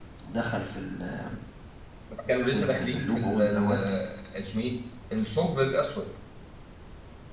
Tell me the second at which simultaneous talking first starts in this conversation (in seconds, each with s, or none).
2.5 s